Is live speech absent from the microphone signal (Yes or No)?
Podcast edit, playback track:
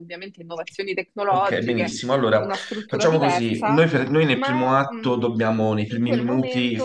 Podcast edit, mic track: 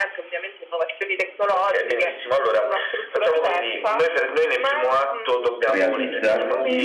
No